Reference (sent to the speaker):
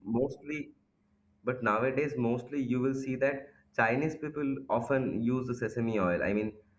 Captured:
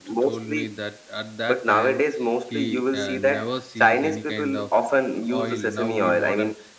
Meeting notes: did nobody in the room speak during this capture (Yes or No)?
No